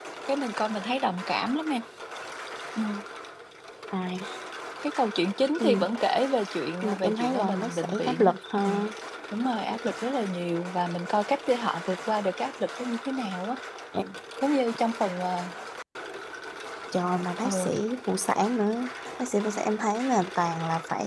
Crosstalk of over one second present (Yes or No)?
Yes